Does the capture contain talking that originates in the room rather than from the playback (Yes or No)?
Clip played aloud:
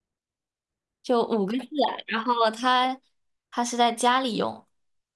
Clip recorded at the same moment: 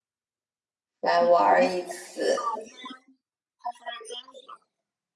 Yes